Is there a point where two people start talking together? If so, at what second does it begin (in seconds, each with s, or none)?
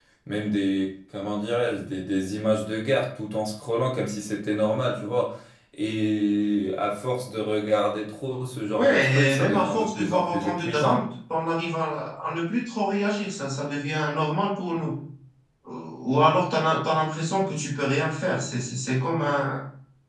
8.8 s